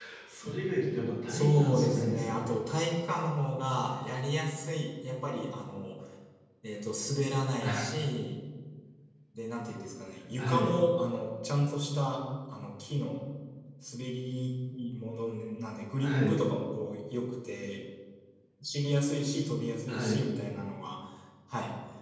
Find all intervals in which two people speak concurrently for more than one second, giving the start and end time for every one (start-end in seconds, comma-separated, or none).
1.3-2.6